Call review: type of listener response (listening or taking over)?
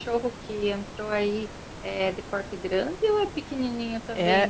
taking over